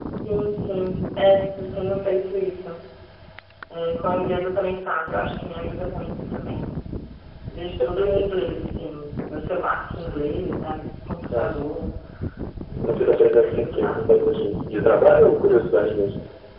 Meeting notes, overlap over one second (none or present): present